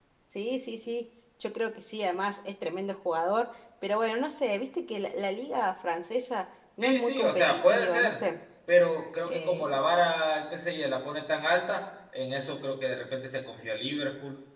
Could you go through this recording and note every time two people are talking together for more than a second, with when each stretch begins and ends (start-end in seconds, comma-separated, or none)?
6.8-8.2